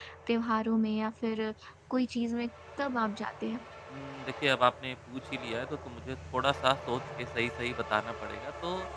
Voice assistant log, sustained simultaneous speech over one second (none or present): none